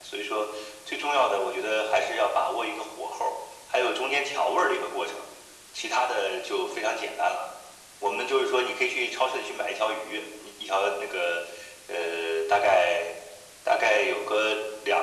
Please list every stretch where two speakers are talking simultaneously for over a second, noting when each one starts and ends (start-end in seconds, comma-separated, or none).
none